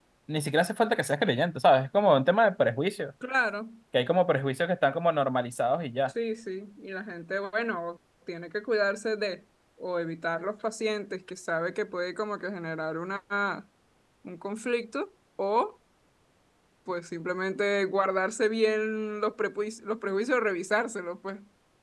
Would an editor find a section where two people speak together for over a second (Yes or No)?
No